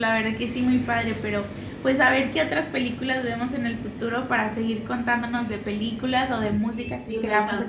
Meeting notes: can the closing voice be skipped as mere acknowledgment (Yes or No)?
No